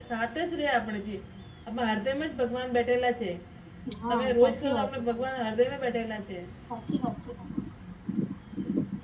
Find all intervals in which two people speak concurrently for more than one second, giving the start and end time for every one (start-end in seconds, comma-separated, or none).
4.1-5.3